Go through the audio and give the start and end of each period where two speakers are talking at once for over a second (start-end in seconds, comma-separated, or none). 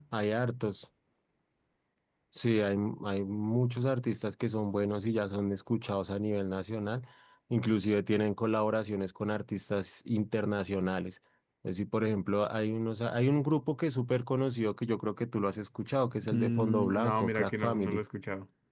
16.3-18.0